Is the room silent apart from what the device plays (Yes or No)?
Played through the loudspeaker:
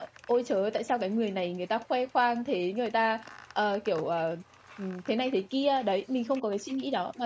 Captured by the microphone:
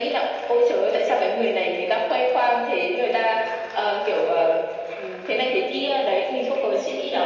Yes